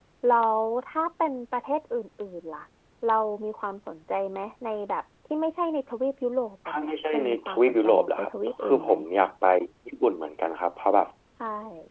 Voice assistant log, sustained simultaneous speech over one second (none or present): present